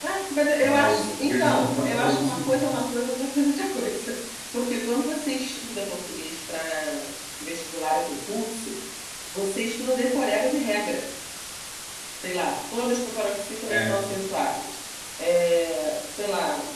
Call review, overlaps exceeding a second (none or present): present